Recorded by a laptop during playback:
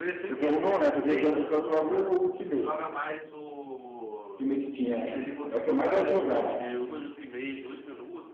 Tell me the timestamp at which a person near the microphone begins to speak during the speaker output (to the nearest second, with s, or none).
2 s